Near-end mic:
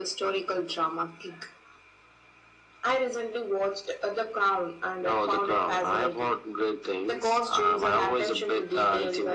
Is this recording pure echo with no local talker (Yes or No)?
Yes